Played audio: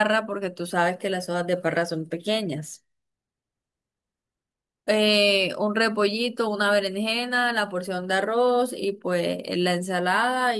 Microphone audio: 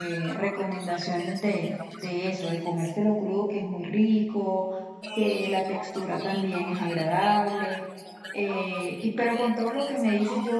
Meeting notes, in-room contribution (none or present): present